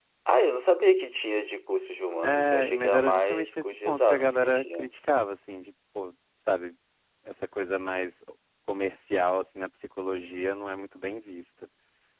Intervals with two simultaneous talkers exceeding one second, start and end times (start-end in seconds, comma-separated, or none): 2.2-4.9